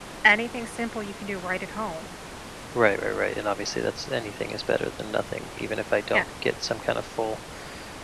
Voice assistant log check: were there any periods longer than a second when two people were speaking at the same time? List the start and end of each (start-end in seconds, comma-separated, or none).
none